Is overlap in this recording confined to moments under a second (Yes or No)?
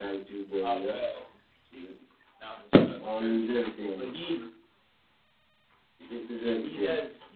Yes